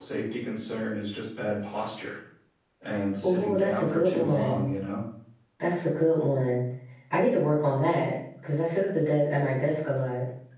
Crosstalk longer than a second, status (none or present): present